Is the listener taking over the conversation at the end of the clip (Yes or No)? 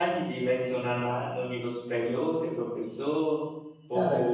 No